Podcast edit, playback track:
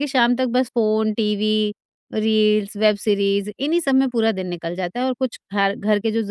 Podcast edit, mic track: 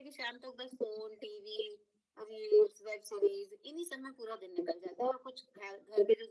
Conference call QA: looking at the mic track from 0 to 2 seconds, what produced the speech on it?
echo only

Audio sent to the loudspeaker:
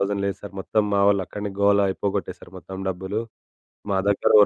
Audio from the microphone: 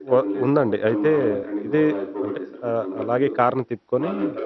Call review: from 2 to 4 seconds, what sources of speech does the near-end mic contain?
both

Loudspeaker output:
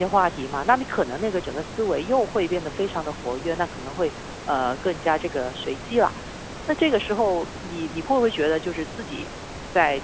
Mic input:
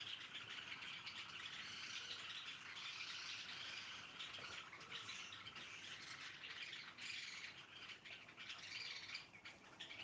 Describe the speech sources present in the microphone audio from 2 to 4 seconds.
neither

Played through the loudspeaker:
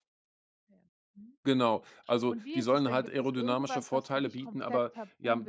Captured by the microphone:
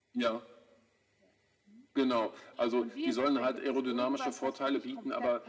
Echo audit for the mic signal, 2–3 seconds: echo only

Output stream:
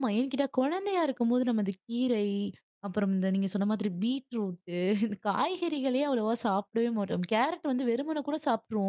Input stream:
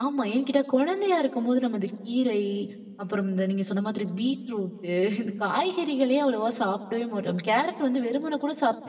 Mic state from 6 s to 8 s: echo only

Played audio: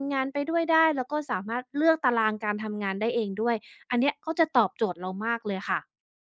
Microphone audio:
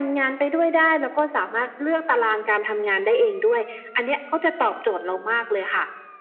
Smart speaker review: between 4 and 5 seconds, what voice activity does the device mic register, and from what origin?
echo only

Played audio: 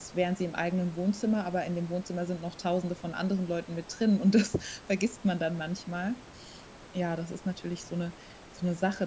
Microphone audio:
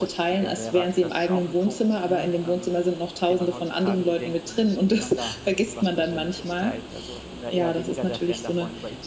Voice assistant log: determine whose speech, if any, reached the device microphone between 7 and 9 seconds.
both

